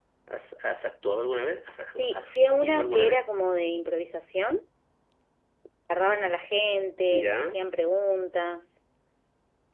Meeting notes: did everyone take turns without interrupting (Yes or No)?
No